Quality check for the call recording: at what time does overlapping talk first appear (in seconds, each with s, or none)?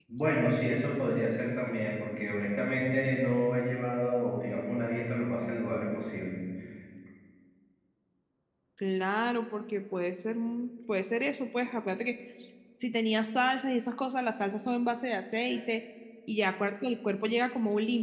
none